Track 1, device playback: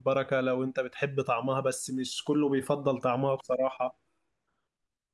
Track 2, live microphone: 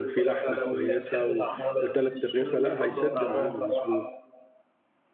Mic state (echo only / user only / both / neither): both